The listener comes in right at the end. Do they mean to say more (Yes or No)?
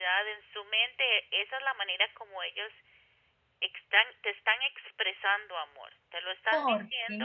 No